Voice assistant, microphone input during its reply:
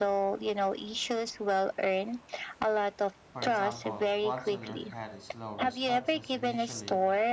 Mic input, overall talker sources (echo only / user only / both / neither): both